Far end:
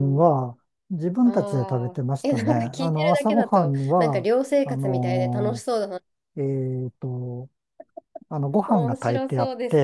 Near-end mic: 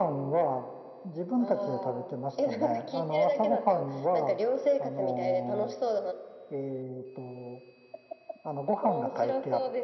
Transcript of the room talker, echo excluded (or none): none